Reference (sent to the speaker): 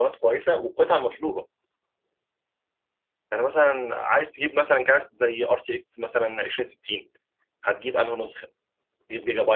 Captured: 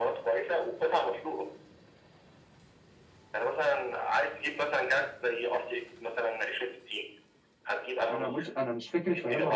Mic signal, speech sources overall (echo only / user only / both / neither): both